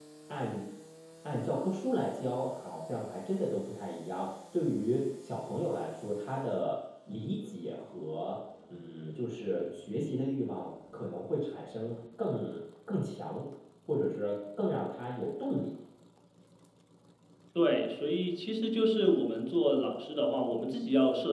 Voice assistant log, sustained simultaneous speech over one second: none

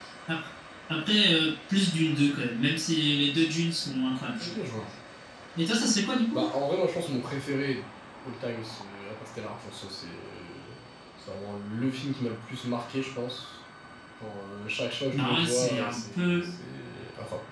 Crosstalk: present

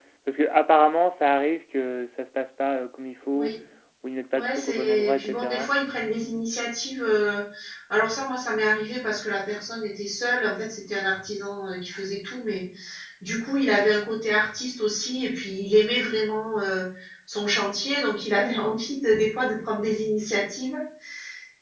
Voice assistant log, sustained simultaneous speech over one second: present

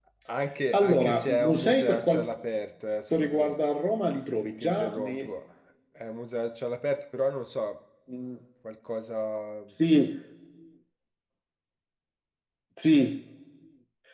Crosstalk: present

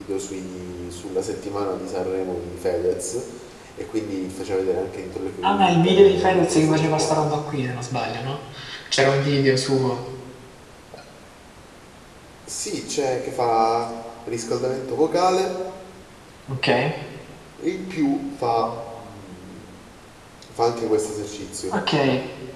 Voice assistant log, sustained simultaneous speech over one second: present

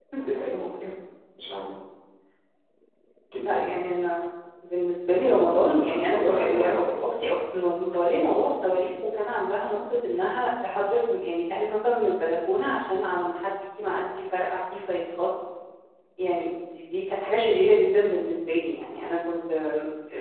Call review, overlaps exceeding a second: present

